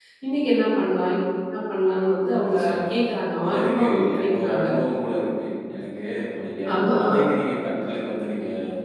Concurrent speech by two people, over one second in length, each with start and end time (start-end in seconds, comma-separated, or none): 3.5-4.7